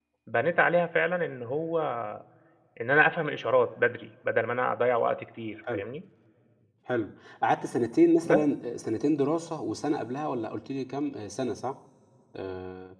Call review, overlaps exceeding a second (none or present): none